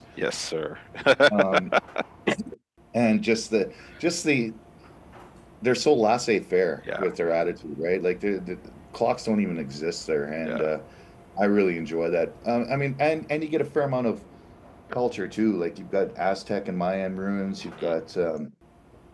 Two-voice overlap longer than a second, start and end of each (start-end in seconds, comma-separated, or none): none